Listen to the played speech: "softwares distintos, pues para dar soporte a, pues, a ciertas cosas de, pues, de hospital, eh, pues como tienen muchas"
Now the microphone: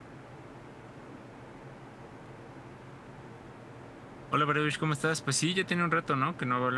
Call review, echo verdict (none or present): none